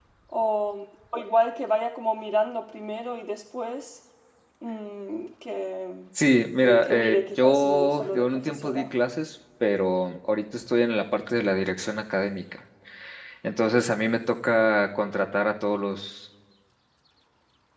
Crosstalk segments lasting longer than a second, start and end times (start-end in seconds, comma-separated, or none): 6.2-8.8